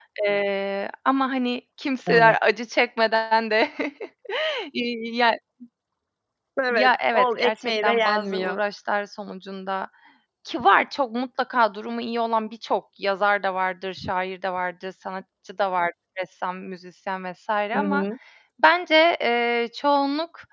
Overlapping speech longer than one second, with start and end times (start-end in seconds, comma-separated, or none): 6.7-8.6